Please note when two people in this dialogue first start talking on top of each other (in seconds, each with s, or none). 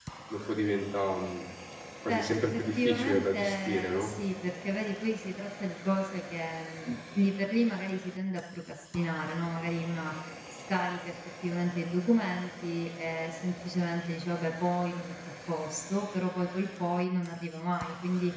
2.1 s